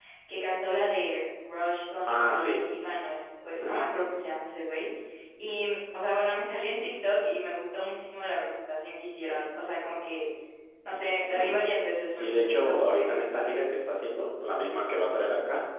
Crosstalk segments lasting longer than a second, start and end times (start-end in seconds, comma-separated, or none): 12.1-13.6